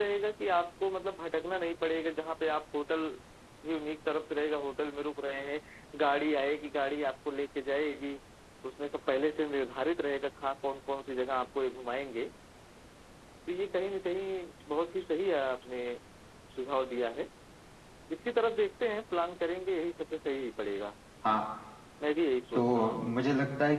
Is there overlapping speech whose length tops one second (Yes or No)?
No